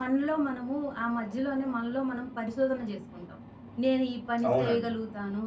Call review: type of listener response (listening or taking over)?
listening